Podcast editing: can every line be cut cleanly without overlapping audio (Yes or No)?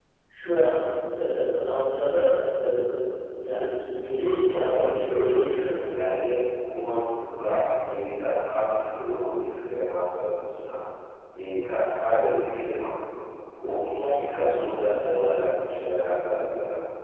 No